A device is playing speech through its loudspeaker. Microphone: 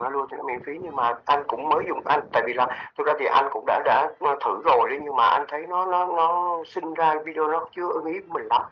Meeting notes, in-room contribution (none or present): none